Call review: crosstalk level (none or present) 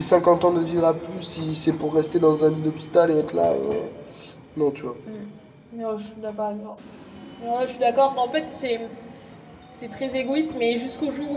none